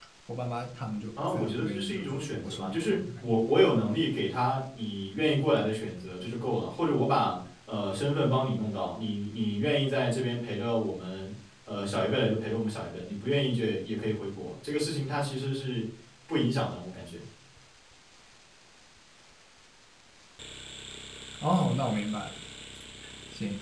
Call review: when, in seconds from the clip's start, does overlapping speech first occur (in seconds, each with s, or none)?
1.2 s